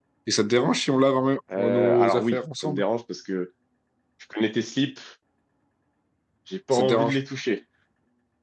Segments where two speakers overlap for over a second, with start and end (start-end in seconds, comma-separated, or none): 1.6-2.8